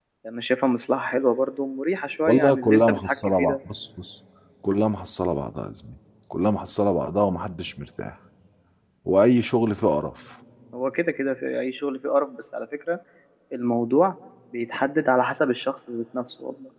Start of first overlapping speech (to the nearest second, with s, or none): 2 s